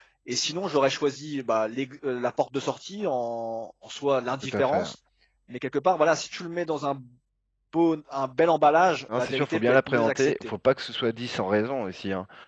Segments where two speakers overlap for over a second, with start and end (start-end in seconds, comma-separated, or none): 9.2-10.5